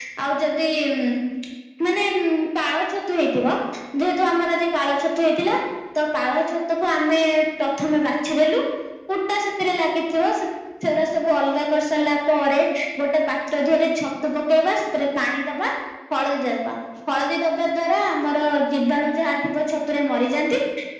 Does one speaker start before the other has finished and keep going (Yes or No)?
No